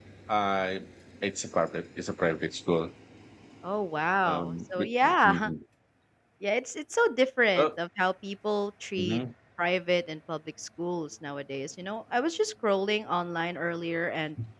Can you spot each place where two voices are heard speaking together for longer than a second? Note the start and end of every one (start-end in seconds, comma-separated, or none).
4.2-5.5